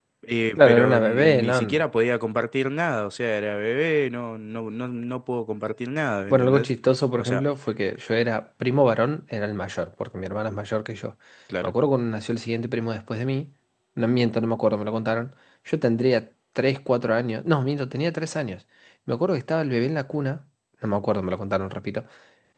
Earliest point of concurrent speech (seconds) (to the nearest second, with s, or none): 1 s